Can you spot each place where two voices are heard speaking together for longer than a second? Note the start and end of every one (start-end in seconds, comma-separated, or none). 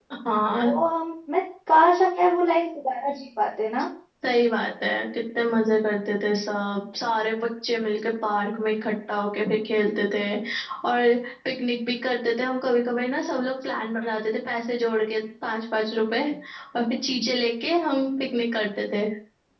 none